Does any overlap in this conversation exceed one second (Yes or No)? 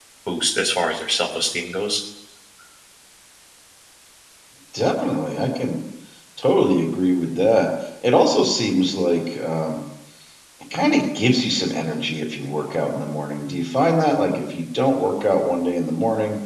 No